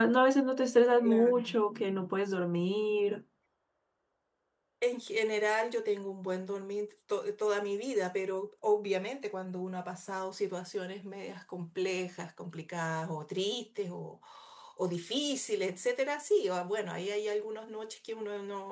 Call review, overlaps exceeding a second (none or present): none